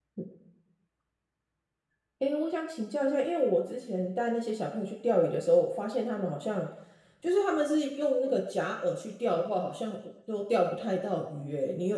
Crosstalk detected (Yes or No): No